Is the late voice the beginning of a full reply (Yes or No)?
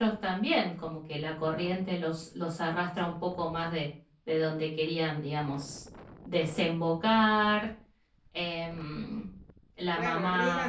Yes